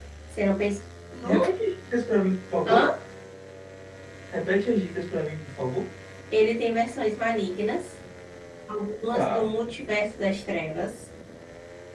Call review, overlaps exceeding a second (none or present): none